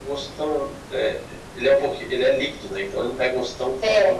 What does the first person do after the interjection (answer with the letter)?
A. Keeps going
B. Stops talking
A